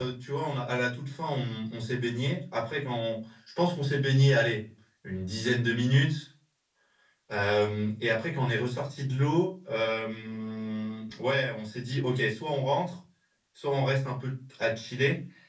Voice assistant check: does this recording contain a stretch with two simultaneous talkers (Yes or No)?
No